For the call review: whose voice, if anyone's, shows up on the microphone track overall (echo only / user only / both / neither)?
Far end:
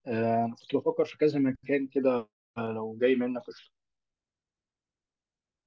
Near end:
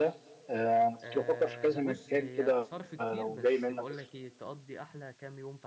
both